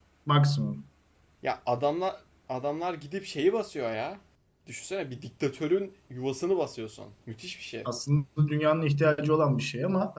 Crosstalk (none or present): none